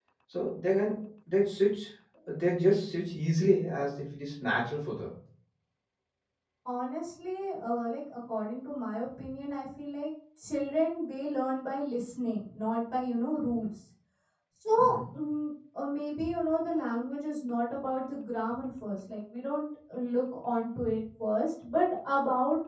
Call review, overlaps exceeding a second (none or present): none